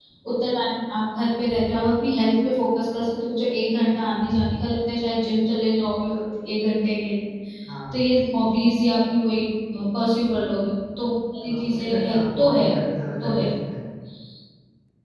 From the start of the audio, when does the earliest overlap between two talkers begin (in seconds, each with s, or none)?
11.4 s